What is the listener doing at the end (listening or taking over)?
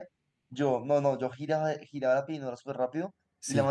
listening